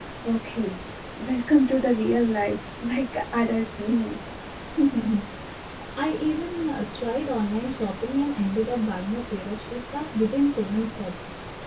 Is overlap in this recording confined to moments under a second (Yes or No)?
Yes